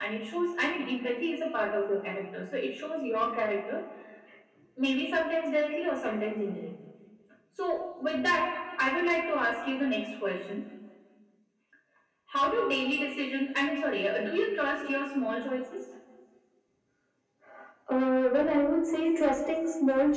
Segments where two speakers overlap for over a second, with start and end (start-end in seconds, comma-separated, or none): none